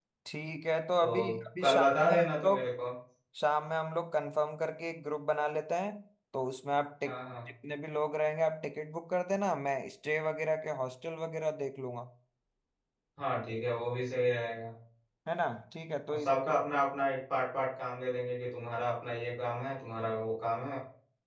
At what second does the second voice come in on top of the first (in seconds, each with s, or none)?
1.0 s